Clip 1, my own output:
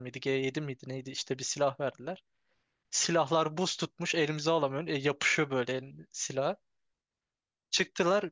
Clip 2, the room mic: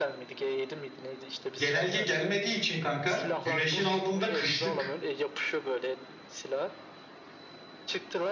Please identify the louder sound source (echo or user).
user